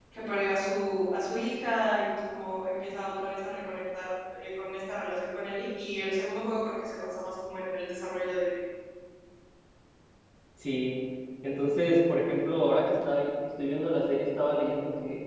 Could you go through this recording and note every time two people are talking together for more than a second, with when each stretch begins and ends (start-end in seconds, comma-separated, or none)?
none